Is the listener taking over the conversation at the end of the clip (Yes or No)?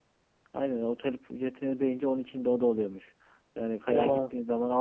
No